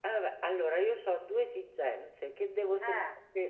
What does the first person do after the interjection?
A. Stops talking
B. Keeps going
B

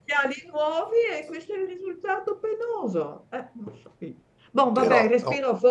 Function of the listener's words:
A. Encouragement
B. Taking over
A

